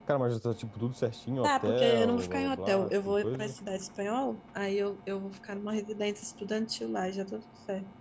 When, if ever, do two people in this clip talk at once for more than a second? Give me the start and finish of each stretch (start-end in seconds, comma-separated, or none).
1.4-3.6